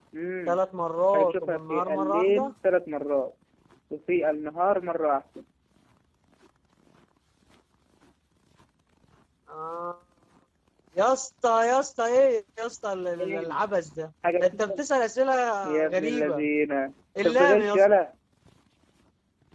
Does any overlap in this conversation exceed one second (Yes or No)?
Yes